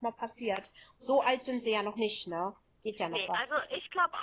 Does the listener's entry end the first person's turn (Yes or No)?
Yes